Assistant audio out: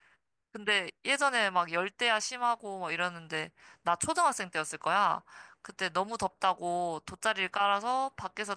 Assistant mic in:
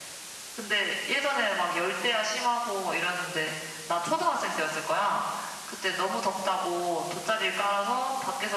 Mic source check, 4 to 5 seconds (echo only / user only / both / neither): echo only